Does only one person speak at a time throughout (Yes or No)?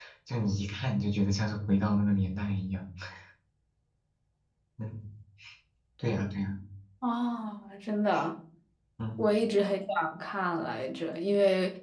Yes